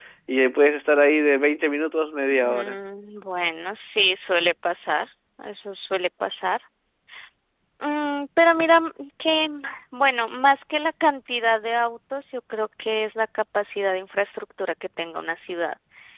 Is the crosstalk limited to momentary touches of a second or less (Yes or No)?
Yes